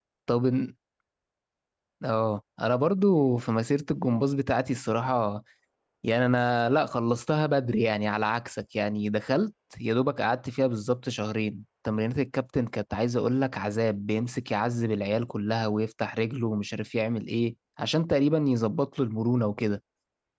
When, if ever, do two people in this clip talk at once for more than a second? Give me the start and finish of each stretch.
none

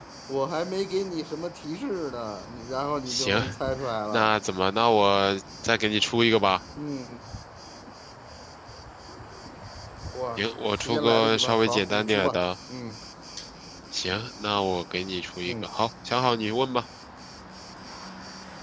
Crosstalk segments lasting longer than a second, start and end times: 10.4-12.4

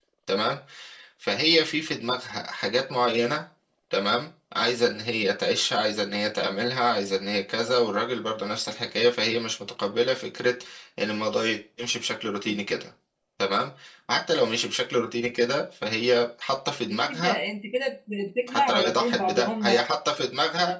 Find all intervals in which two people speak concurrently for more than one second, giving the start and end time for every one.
18.5-19.8

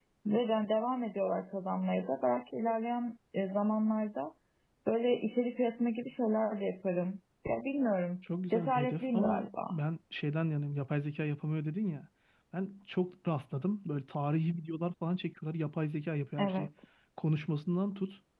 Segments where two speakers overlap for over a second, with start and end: 8.5-9.7

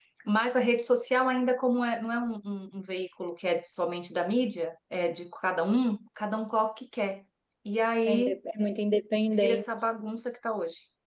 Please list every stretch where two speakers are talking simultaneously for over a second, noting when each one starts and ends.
none

